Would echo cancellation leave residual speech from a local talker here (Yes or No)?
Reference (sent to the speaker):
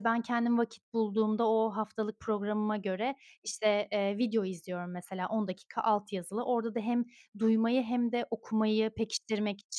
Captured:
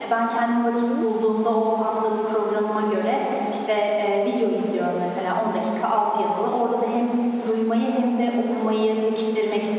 Yes